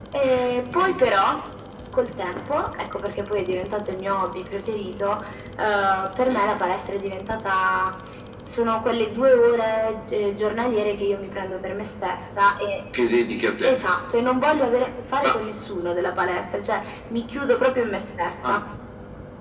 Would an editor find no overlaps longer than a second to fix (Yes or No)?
Yes